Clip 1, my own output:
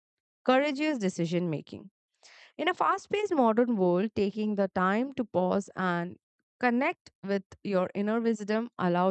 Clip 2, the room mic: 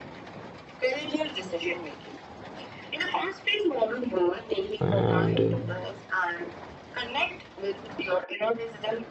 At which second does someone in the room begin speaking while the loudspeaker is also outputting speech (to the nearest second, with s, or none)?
5 s